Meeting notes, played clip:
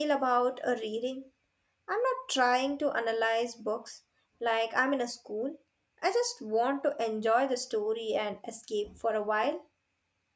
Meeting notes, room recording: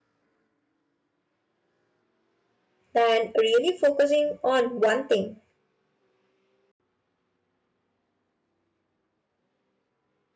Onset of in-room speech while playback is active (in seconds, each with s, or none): 2.9 s